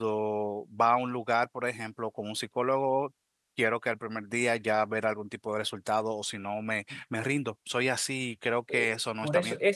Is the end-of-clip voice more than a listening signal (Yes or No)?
Yes